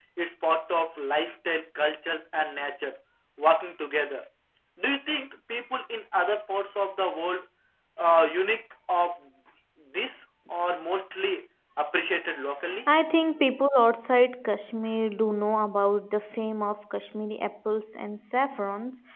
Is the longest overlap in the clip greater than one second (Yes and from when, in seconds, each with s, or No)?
No